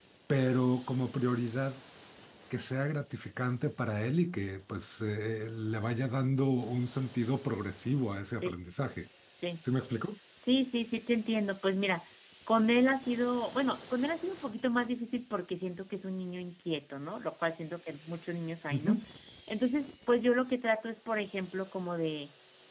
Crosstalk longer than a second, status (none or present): none